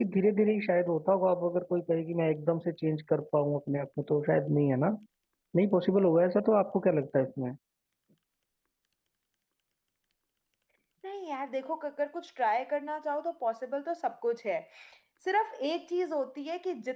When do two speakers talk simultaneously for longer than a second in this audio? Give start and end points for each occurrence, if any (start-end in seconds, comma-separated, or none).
none